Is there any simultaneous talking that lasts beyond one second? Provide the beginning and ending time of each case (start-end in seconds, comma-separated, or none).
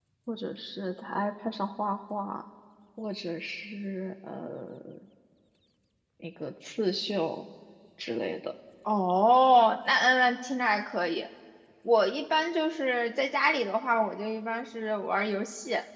none